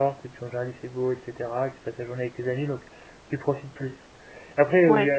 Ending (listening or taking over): listening